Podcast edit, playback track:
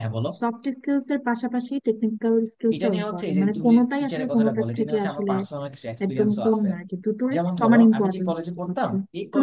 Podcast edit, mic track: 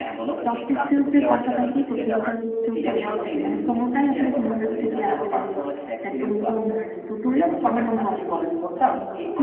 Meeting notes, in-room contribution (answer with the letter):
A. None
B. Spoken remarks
B